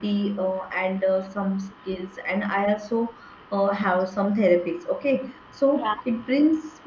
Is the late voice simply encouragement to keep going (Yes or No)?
Yes